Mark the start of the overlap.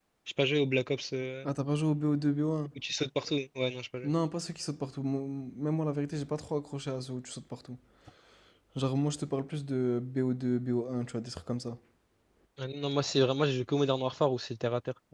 none

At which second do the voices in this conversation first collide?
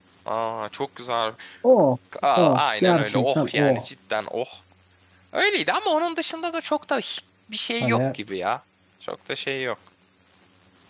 2.4 s

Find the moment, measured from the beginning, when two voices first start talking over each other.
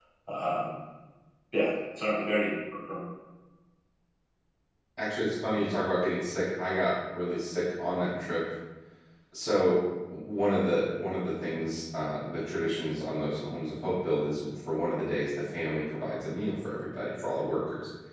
none

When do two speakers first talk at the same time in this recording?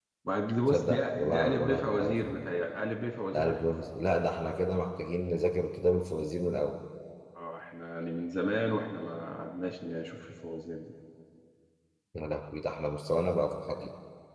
0.7 s

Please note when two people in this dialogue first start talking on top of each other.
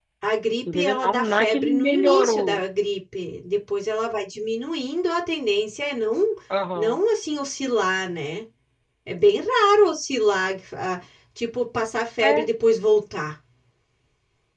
0.7 s

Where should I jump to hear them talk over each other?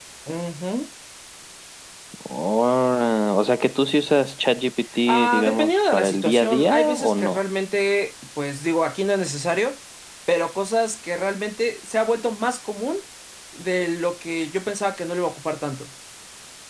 5.1 s

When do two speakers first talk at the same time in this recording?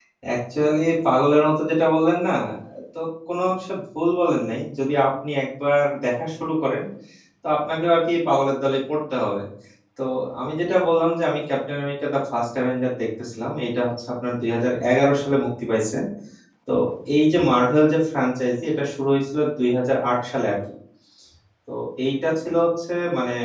none

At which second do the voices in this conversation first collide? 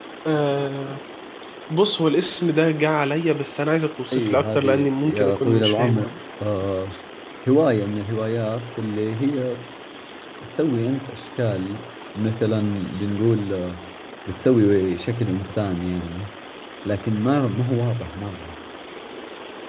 4.1 s

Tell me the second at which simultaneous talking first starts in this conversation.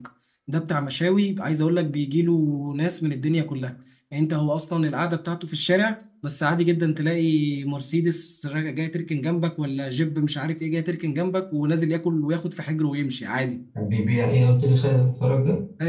none

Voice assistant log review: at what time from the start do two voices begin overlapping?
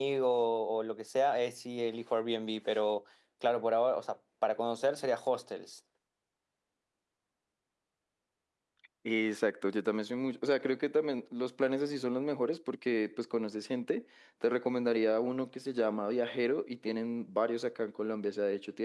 none

